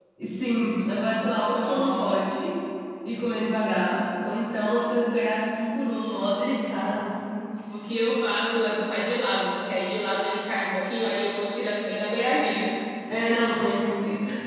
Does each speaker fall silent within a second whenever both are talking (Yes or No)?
Yes